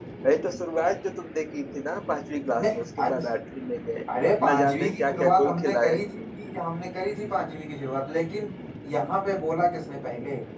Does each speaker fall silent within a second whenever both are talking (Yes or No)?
No